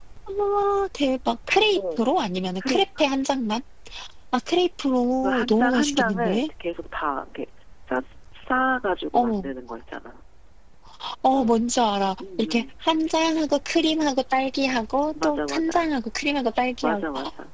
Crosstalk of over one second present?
Yes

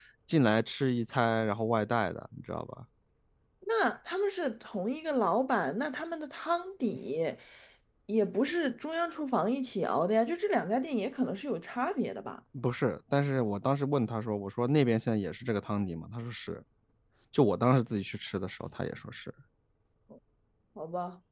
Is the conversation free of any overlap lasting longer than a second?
Yes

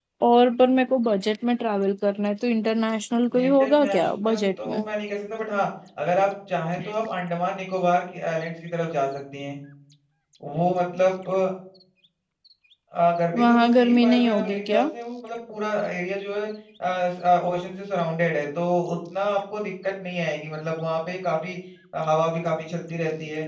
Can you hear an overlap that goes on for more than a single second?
Yes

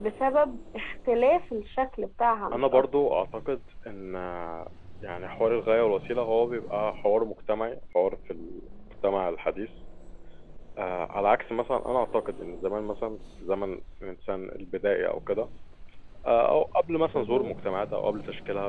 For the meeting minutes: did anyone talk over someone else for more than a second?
No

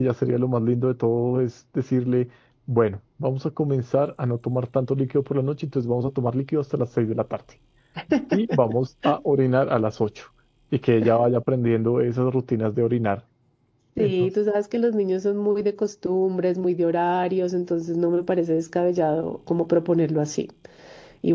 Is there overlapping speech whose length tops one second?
No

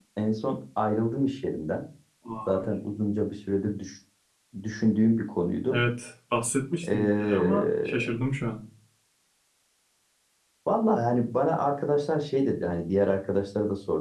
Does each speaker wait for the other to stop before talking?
No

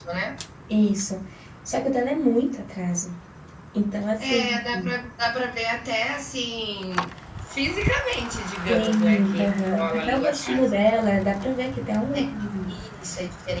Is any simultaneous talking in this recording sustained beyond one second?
Yes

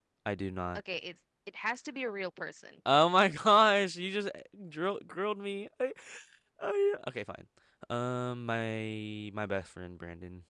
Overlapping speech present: No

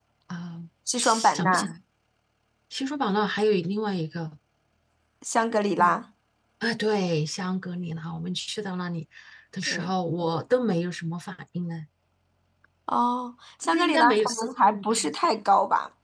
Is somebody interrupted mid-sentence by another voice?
Yes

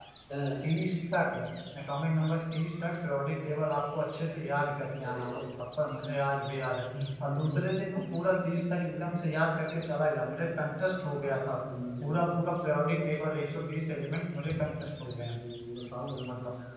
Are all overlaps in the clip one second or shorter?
Yes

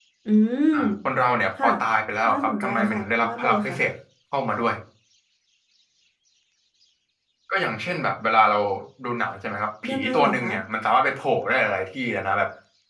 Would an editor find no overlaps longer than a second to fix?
No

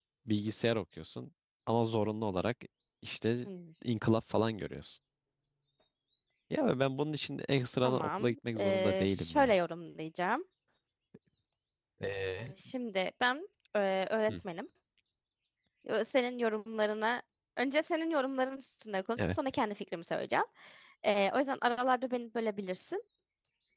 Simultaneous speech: Yes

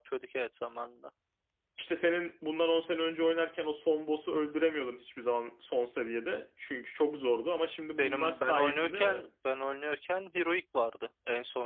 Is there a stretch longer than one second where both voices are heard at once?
Yes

